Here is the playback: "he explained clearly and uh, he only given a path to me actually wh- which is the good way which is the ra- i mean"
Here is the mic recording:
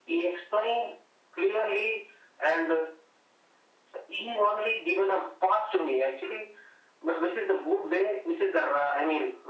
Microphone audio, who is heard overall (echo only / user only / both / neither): echo only